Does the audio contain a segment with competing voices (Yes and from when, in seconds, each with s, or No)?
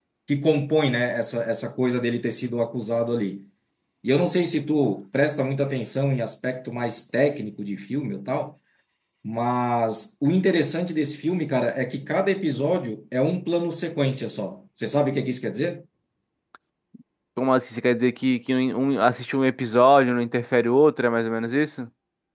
No